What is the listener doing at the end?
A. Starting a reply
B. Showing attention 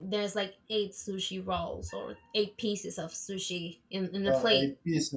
A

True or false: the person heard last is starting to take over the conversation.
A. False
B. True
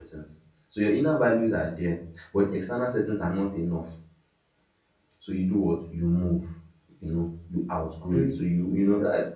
A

